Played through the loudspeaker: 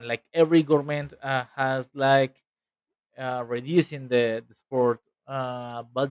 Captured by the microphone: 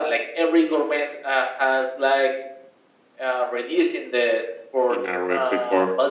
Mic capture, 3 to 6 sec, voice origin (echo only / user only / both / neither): both